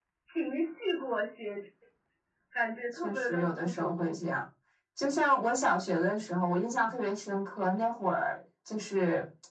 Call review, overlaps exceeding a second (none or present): present